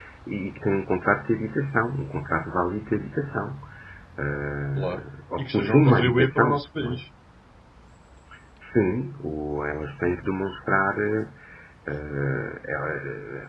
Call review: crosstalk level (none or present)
present